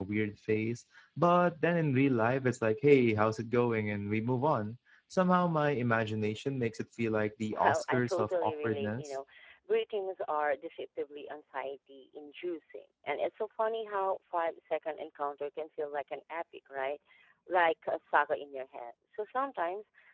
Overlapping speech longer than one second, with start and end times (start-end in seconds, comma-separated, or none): 7.5-9.1